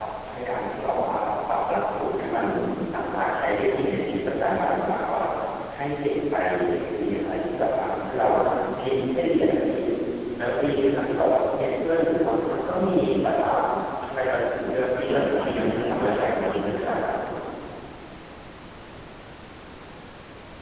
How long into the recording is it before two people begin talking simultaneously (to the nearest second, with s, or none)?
15 s